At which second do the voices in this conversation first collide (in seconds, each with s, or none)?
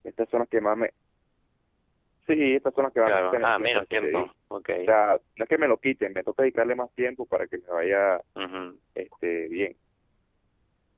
3.0 s